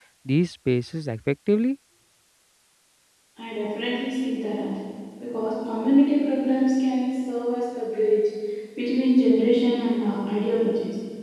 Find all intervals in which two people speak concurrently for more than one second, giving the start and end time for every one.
none

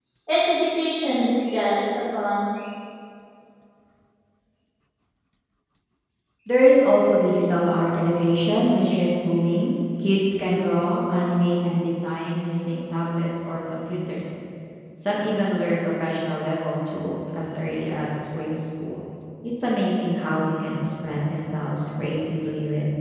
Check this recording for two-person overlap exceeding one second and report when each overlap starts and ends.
none

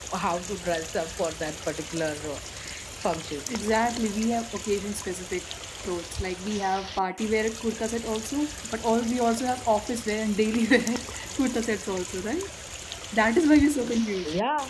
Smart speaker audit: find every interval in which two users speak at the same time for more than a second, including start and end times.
none

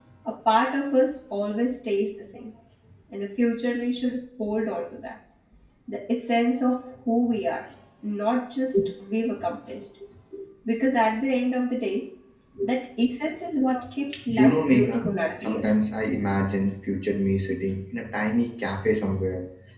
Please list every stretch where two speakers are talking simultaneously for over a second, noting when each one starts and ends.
14.3-15.7

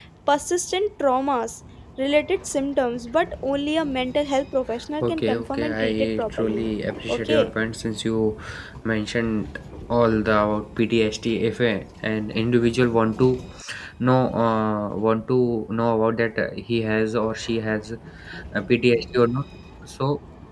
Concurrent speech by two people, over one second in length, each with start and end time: 5.0-6.7

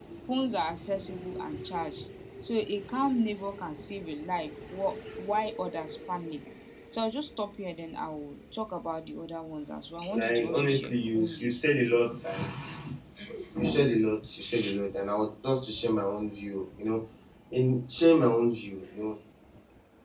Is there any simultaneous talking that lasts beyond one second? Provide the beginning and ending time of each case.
10.1-11.5

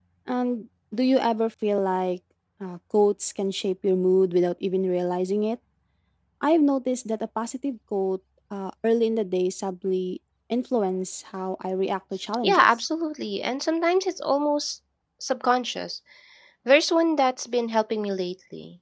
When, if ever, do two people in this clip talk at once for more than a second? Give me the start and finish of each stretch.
none

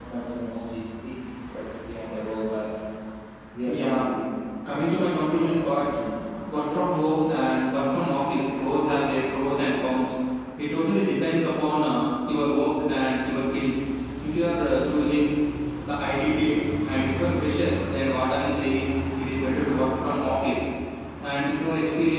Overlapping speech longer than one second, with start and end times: 4.7-5.9

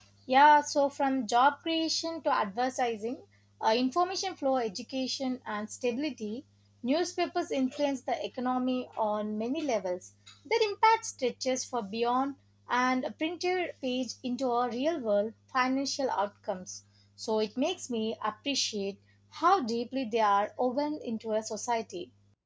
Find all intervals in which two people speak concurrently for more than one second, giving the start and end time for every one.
none

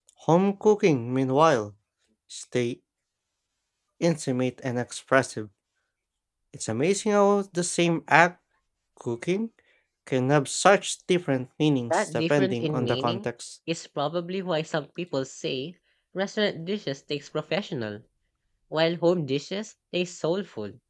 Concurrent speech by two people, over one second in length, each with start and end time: 11.9-13.2

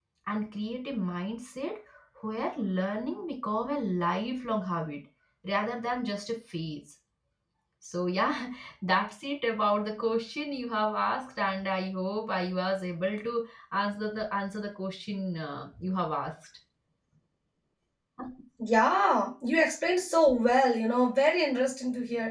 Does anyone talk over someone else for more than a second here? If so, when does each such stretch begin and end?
none

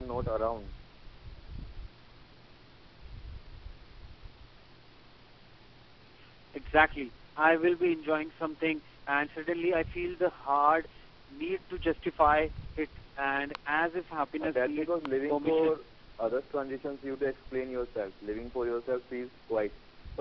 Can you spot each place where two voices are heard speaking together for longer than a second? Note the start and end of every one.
14.4-15.8

